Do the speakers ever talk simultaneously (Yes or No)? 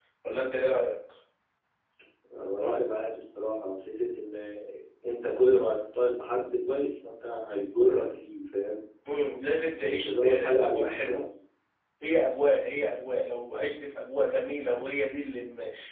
Yes